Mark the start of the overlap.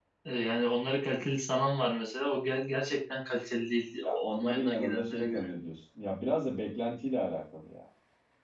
4 s

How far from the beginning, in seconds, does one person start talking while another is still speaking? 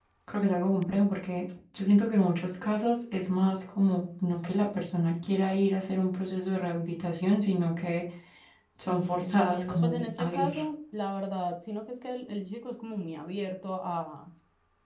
9 s

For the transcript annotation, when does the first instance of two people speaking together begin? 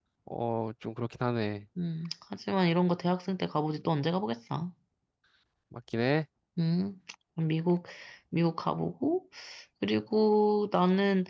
none

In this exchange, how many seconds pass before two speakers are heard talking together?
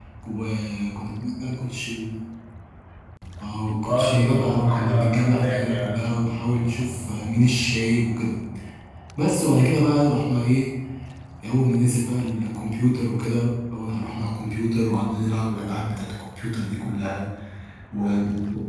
4 s

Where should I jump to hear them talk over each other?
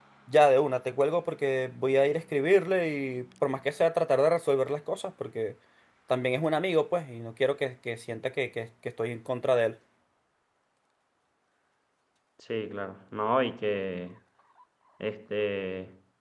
none

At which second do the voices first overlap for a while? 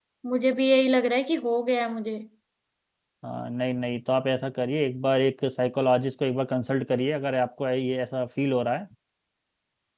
none

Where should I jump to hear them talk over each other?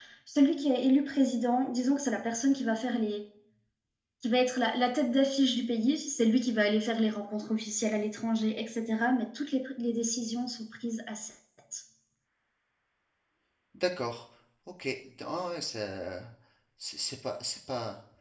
none

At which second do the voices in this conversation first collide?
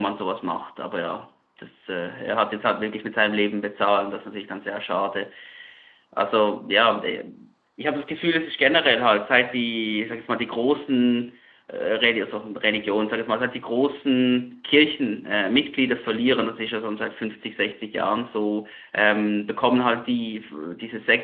none

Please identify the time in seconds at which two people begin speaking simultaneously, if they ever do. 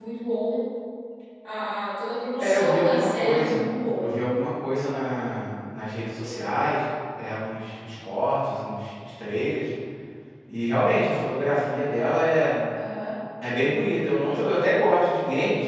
2 s

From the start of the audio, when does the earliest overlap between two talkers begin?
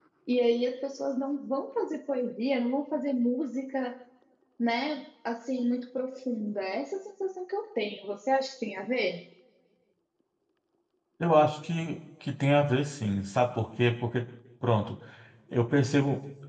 none

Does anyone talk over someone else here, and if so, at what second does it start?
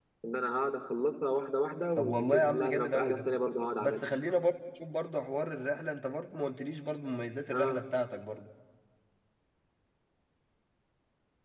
2 s

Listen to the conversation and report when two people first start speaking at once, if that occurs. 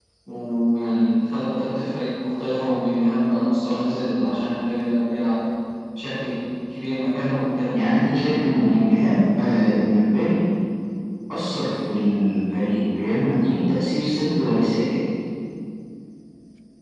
none

